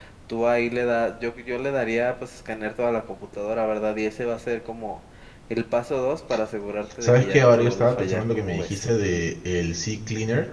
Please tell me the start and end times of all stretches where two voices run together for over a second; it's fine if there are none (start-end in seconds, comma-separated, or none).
7.0-8.8